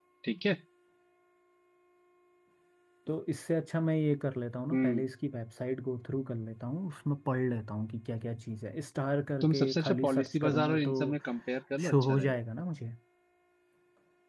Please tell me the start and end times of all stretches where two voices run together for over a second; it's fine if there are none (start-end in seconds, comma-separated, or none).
9.4-11.0